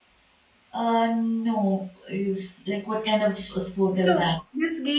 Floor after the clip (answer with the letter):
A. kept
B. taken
B